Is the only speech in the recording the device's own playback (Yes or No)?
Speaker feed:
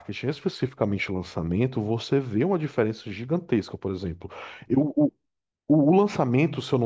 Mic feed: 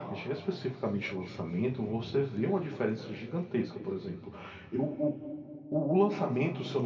Yes